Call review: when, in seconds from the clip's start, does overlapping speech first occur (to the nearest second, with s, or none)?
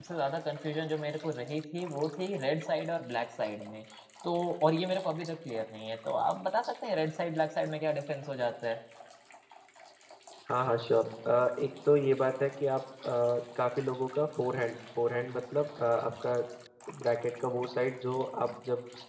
none